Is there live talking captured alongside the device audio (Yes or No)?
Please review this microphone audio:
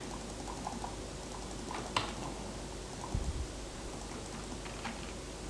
No